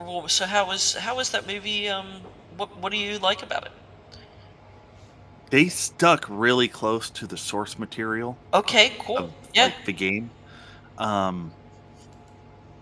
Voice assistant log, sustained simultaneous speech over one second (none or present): none